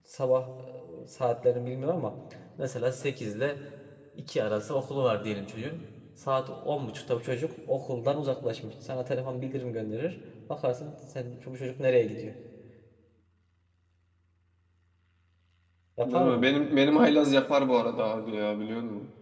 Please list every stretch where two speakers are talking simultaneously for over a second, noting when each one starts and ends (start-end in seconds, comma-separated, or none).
none